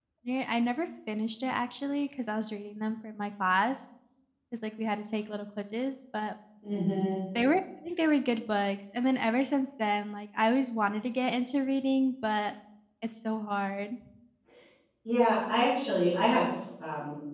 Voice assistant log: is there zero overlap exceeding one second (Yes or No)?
Yes